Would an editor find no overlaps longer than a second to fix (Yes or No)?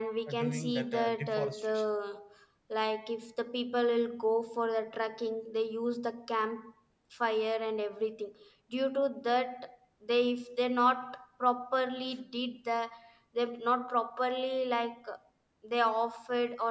No